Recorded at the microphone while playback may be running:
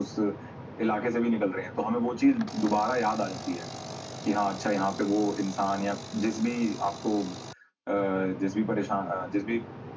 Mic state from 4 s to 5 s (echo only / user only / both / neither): echo only